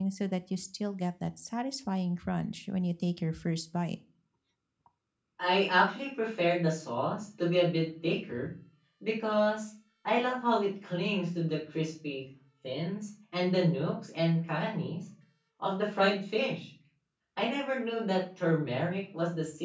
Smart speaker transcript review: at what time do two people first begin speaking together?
none

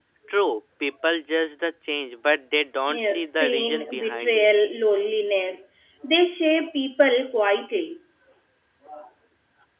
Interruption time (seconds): 2.9 s

